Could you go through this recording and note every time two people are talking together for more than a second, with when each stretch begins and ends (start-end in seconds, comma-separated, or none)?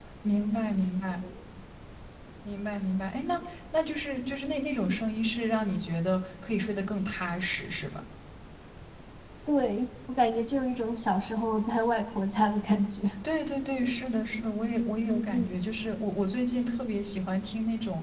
none